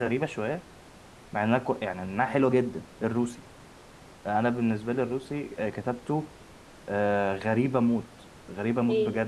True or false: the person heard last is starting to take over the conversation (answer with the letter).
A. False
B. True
B